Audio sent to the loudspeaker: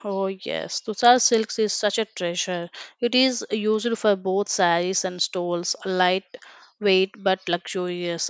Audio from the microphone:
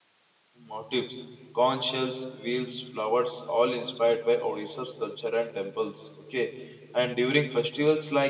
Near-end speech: present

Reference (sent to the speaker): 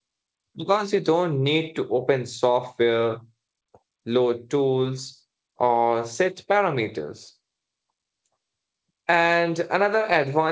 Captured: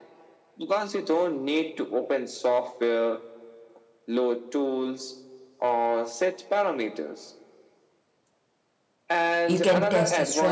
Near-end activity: present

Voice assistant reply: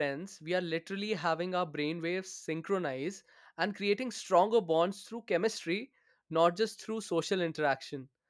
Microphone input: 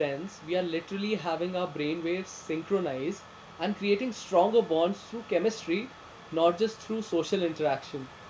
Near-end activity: none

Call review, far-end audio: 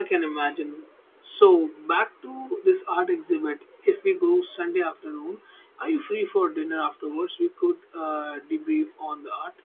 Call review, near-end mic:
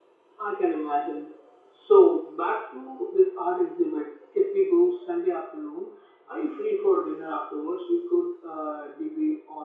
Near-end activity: none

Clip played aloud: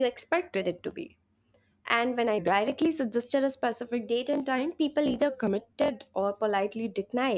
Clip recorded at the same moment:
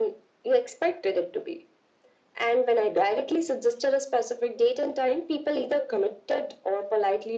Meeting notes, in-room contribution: none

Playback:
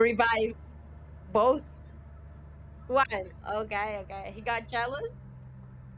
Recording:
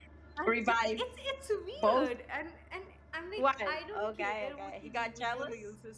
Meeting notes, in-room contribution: present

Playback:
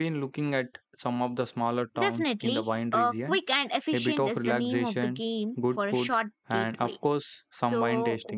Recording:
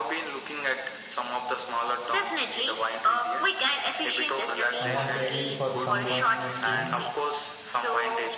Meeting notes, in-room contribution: present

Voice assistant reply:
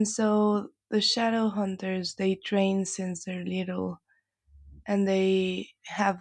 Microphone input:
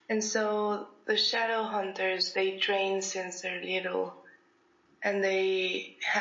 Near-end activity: none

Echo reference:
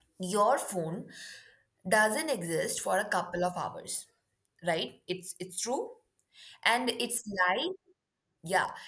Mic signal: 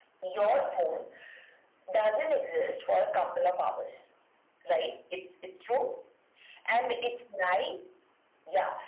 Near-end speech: none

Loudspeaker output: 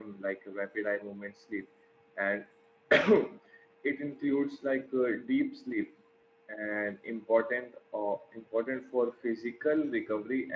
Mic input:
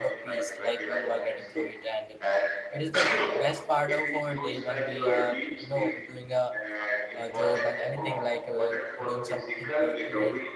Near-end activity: present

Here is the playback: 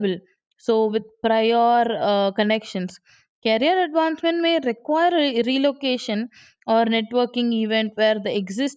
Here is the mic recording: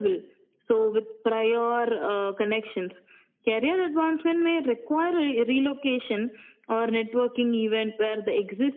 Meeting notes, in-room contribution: none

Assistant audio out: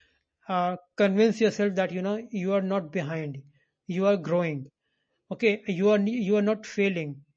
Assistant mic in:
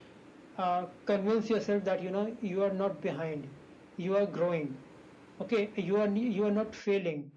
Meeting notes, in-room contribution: none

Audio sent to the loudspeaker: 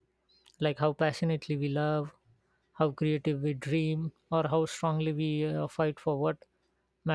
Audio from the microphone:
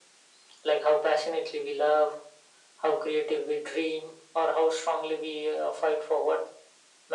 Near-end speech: none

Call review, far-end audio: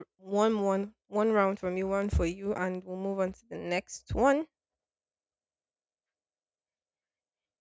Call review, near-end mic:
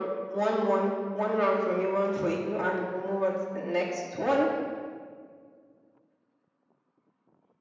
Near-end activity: none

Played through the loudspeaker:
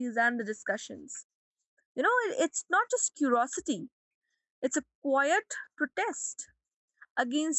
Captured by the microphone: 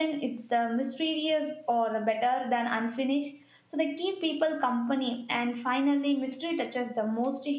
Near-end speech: present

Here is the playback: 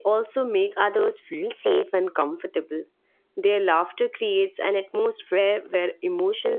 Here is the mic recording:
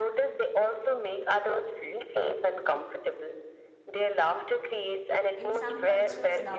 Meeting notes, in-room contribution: present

